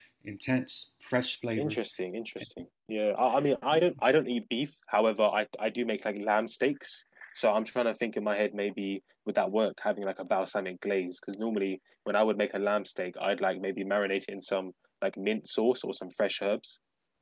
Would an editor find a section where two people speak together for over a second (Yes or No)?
No